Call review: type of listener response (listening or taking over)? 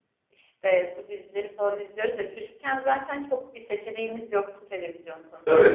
taking over